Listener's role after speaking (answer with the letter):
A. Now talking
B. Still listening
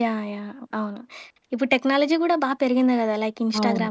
B